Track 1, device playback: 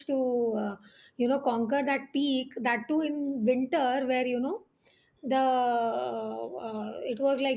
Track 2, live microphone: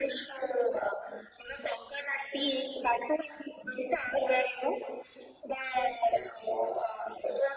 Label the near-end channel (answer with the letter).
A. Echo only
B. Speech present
A